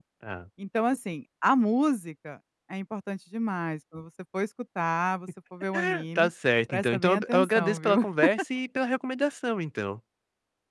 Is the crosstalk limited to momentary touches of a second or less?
No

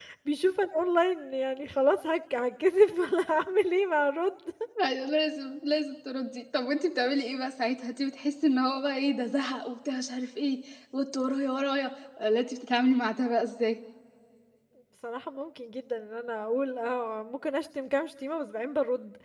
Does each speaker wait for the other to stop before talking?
Yes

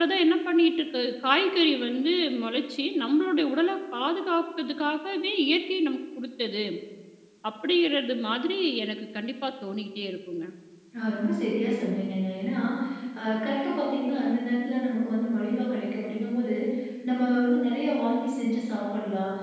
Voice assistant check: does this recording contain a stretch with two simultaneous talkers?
No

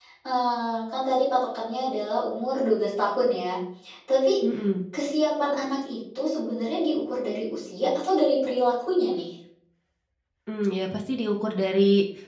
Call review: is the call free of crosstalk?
Yes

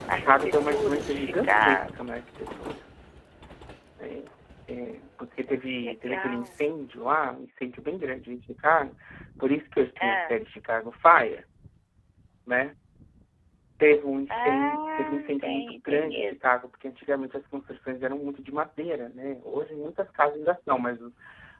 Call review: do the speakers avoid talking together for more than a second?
No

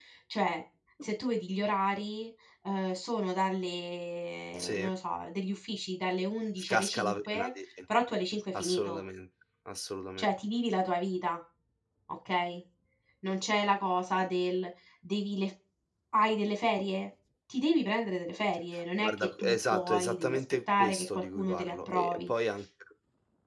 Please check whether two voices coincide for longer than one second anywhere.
Yes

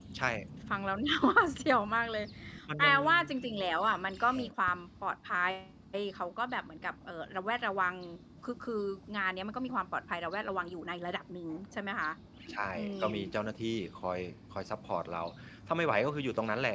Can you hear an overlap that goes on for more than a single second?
No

